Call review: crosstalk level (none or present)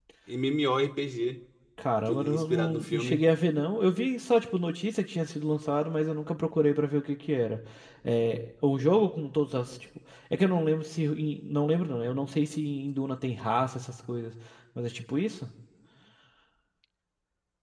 present